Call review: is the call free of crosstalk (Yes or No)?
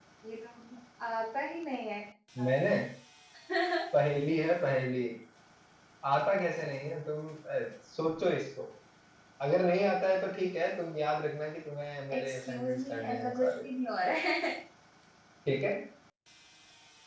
No